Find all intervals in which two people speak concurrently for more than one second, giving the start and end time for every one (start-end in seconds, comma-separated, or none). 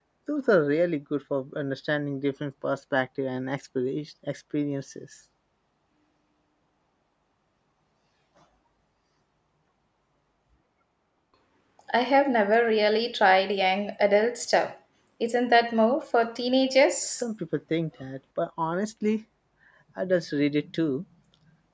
none